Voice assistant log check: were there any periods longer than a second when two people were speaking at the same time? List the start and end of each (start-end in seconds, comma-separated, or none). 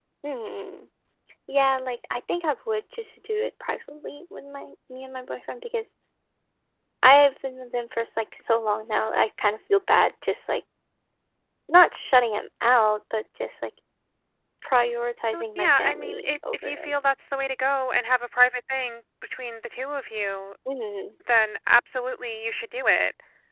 15.0-16.9